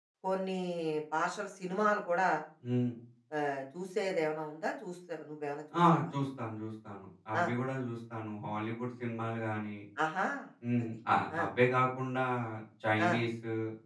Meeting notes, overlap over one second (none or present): none